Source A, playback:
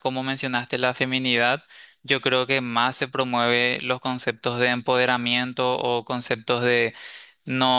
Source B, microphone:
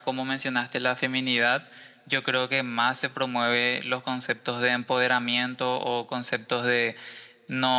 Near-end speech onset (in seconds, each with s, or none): none